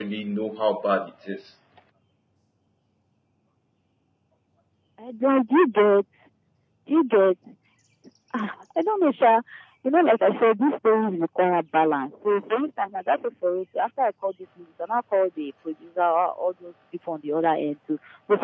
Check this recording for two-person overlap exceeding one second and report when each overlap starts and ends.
none

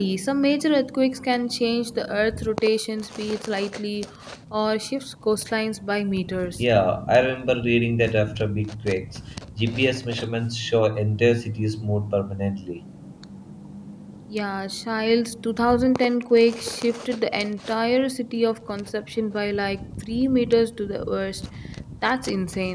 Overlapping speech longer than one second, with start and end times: none

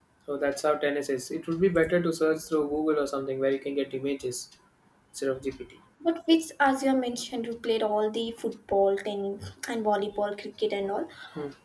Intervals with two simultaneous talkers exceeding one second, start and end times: none

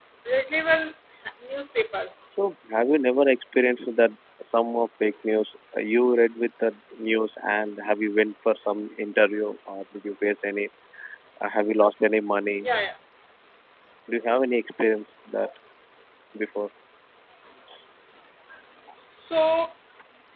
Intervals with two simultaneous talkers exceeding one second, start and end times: none

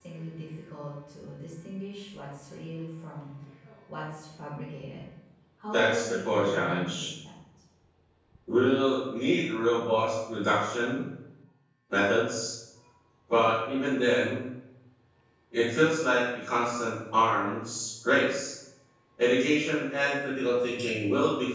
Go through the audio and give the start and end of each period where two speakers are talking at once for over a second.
5.7-7.1

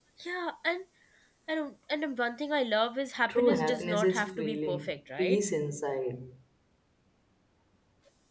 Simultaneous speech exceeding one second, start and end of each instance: 3.3-5.4

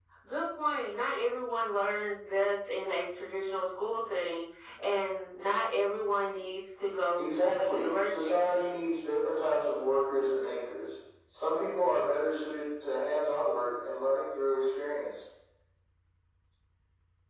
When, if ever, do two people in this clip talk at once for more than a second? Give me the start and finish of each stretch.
7.2-8.4

